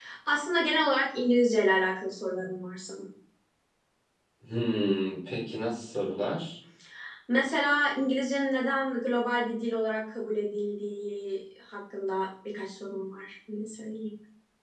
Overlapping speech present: No

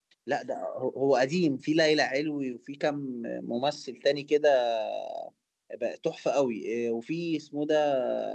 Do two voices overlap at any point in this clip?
No

